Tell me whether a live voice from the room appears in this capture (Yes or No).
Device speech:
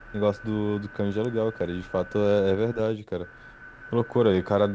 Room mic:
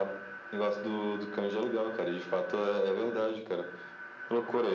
No